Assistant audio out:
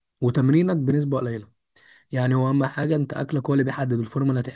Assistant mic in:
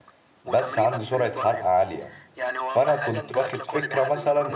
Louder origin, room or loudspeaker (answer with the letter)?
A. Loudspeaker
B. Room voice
B